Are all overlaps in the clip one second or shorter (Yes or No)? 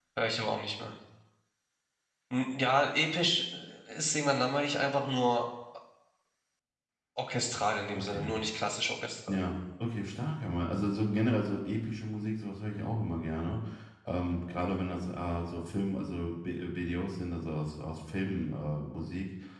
Yes